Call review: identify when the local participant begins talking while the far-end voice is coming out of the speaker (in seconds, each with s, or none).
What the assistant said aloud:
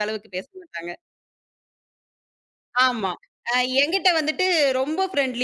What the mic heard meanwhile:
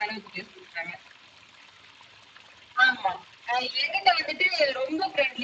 none